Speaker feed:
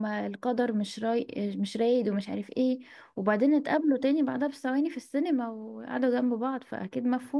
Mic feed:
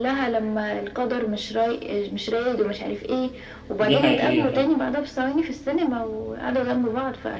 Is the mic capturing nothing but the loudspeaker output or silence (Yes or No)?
No